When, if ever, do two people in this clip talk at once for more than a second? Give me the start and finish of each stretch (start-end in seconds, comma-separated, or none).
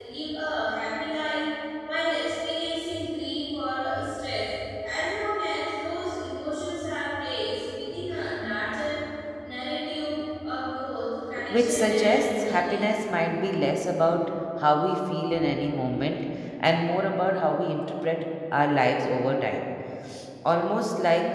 11.5-12.8